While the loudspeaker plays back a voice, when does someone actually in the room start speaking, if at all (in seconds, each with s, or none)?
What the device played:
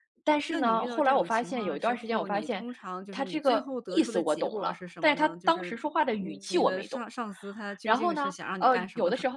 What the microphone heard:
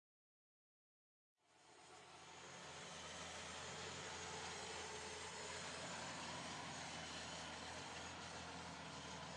none